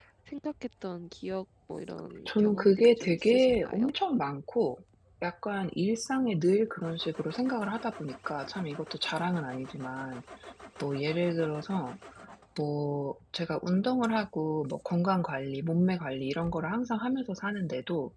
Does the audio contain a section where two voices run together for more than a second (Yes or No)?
Yes